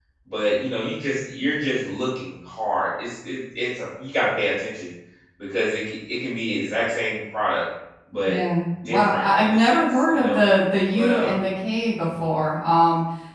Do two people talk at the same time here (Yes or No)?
Yes